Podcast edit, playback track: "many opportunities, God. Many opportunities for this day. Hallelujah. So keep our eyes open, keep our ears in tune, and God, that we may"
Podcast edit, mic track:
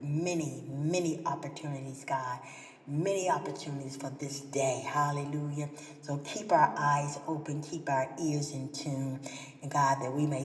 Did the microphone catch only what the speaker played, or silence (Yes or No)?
Yes